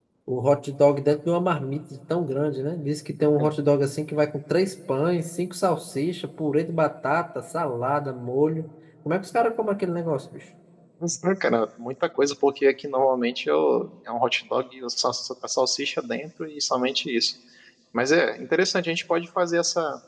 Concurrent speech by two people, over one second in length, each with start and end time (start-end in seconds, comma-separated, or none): none